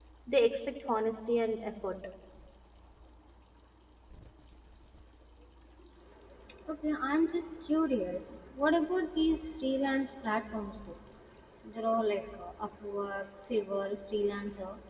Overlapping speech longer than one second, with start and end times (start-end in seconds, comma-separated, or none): none